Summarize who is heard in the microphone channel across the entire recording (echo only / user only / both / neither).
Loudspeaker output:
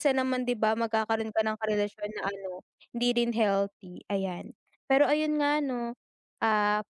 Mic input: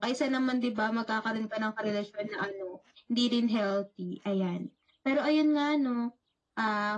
echo only